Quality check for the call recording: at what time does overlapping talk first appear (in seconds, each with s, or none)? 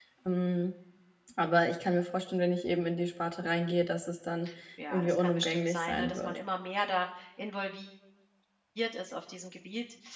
4.9 s